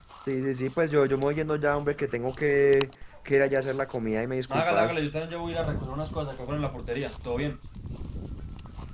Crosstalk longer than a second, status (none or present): none